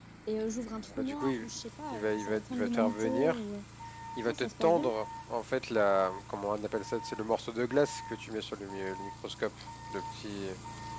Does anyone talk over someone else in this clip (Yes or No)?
Yes